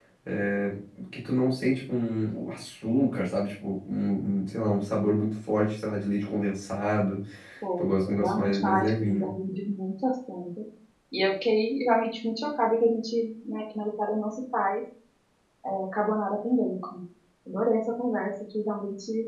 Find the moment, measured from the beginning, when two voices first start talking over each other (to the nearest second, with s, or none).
8 s